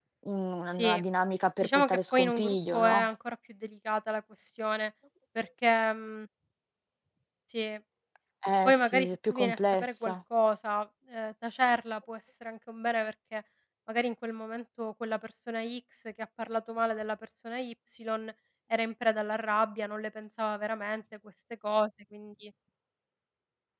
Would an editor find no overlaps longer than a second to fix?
No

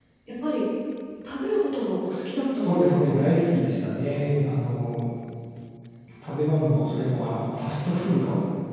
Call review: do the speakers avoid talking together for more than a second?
Yes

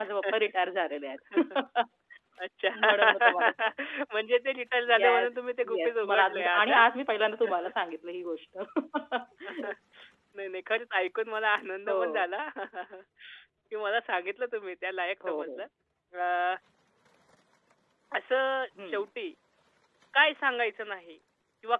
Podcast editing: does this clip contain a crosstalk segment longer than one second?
Yes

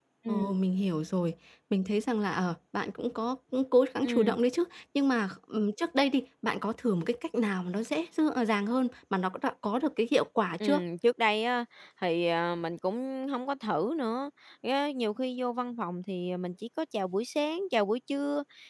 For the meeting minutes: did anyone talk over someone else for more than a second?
No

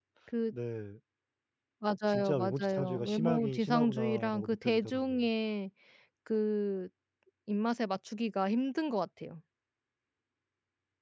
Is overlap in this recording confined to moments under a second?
No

